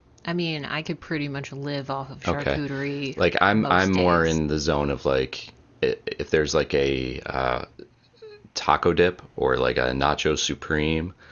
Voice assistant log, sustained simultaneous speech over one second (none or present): present